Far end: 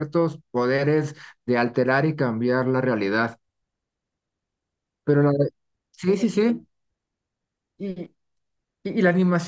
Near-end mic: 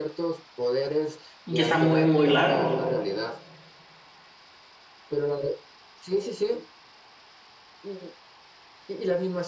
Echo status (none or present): present